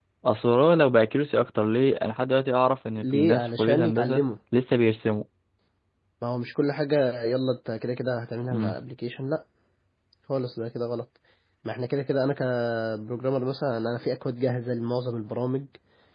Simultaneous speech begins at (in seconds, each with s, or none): 3.0 s